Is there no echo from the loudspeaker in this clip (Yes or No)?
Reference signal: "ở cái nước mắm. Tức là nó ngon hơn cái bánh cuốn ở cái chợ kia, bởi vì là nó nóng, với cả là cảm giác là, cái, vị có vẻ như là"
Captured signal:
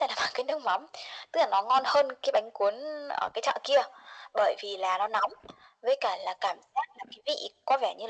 No